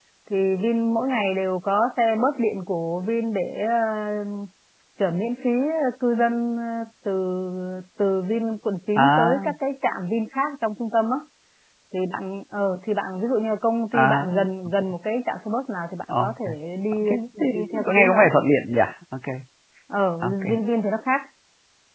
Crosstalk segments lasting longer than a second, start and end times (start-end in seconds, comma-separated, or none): 16.9-18.3